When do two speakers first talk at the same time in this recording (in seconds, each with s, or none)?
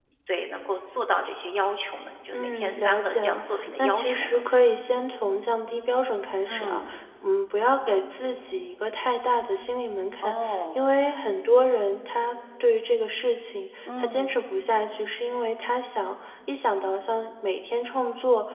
2.3 s